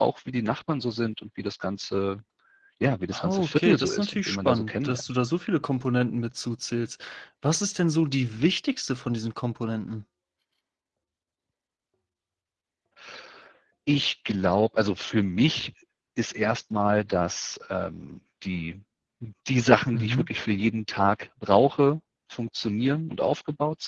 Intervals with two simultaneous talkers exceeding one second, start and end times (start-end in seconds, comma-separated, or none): 3.1-5.0